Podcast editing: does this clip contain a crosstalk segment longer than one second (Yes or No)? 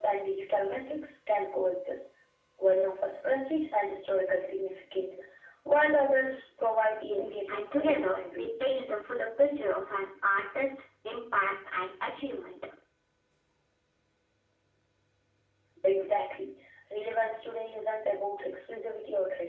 Yes